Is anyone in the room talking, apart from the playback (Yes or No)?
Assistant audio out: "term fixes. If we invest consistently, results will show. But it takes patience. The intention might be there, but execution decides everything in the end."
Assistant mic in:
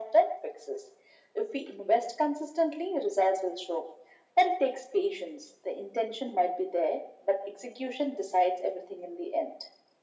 No